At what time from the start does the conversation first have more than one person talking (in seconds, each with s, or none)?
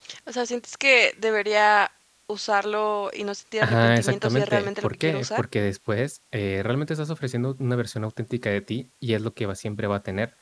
3.6 s